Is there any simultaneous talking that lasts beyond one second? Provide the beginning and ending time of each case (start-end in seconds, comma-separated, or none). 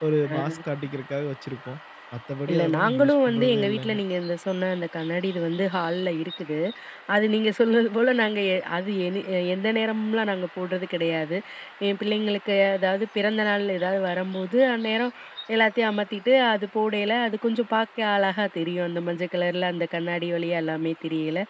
2.5-4.0